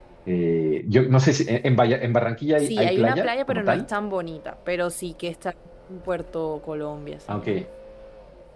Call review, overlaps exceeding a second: present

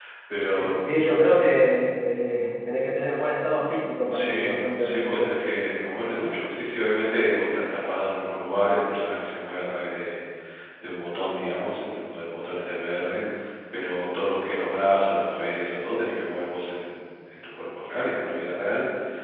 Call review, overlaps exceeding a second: present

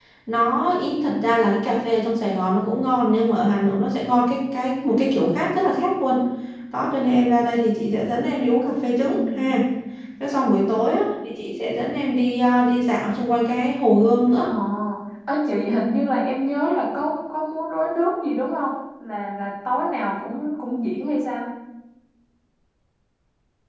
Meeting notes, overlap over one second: none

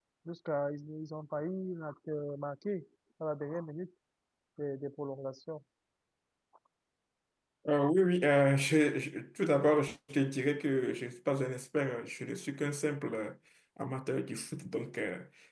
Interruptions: none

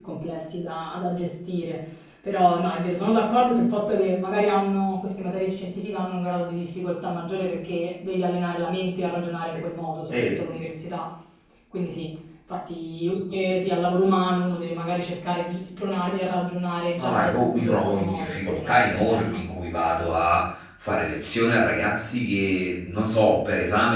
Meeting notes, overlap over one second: present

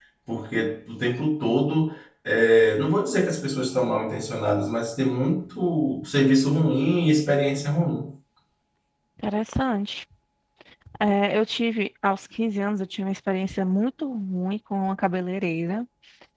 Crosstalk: none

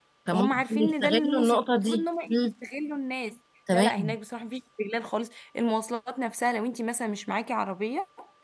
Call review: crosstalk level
present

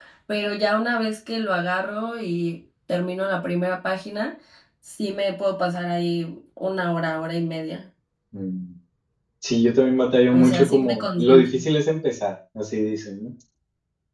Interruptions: present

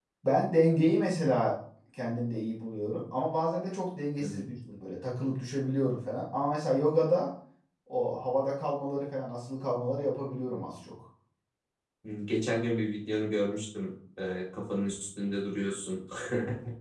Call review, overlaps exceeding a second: none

